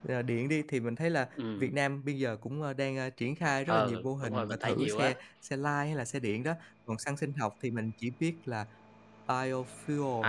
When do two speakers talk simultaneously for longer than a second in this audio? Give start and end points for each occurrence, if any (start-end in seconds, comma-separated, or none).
3.7-5.1